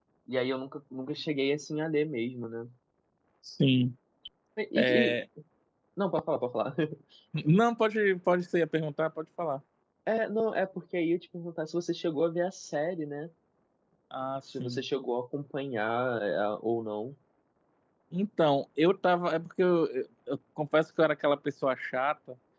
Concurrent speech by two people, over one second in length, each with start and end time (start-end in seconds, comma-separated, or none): none